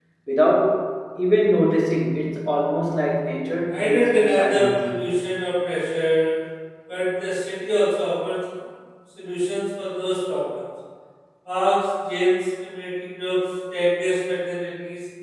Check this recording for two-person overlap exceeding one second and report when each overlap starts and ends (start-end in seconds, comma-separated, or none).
3.7-5.0